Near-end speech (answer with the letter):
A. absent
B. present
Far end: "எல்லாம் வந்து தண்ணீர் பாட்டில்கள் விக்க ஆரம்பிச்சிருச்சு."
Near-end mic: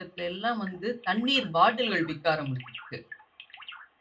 A